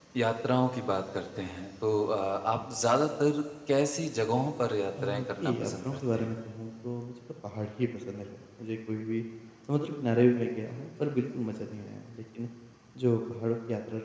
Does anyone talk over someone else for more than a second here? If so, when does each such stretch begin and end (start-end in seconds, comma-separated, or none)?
5.0-6.3